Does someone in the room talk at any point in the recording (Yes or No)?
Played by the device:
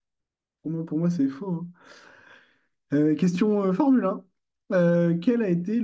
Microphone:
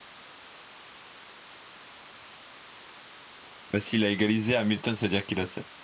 Yes